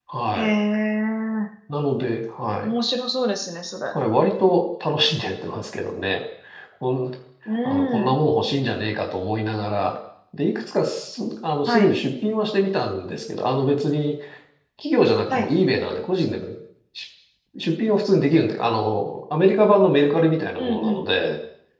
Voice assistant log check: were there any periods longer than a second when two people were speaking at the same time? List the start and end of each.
none

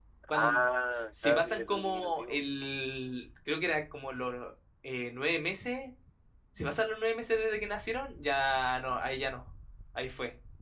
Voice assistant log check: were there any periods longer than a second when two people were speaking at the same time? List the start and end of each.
1.2-2.4

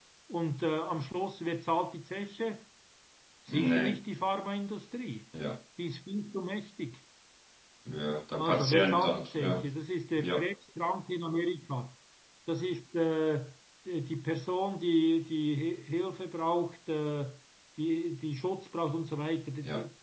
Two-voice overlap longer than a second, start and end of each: 8.4-9.7

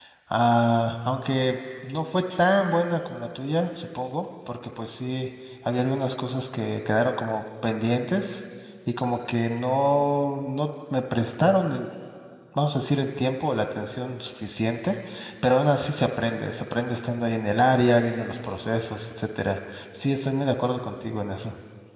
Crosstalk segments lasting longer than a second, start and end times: none

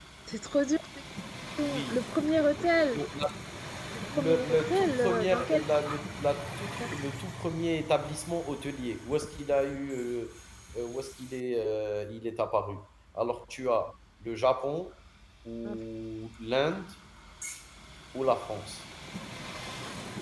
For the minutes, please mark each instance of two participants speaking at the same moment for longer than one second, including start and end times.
4.2-5.6

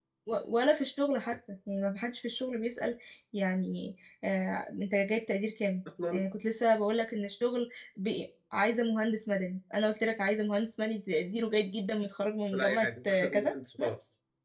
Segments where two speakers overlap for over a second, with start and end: 12.5-13.9

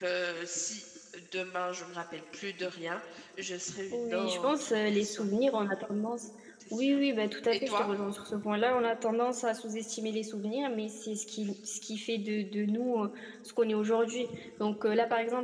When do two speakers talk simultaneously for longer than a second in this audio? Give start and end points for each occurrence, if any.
3.9-5.3

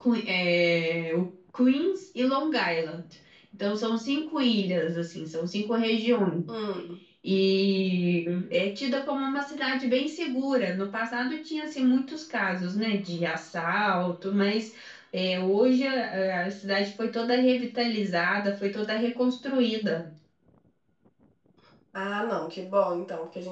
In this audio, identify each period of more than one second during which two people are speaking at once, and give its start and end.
none

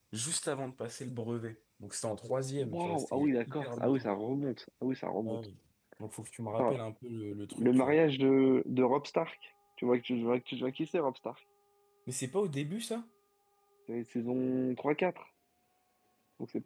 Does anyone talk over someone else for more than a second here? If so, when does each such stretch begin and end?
2.6-4.1

